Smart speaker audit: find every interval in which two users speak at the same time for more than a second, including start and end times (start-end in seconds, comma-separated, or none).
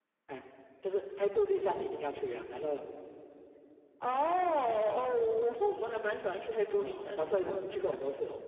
none